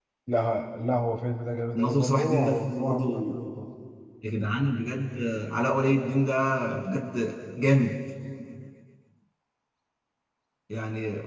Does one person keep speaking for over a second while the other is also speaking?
Yes, from 1.8 s

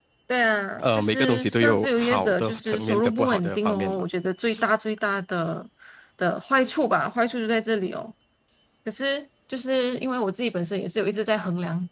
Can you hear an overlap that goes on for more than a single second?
Yes, from 0.8 s

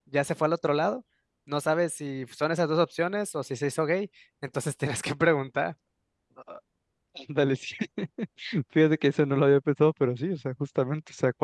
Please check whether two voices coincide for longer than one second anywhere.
No

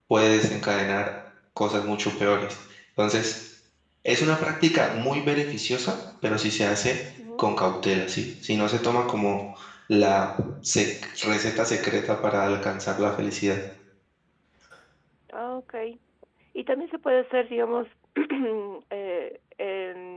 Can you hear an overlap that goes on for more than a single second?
No

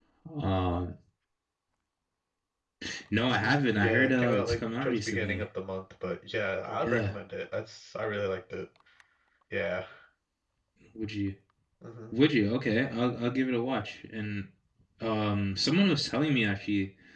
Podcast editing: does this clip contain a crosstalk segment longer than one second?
Yes, from 3.3 s

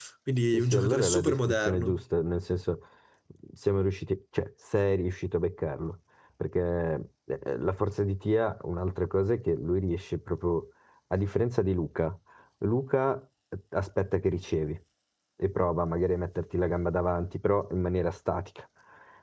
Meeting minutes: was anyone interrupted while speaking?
Yes, from 0.5 s

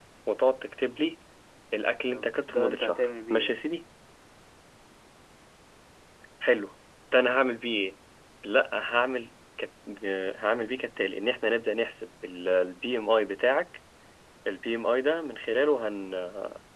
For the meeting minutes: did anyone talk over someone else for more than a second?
Yes, from 2.1 s

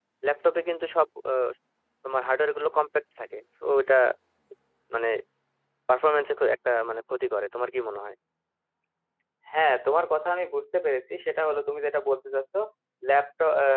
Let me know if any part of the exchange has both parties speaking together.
No

